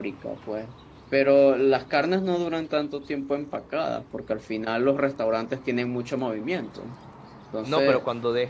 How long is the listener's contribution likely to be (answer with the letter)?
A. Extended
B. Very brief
A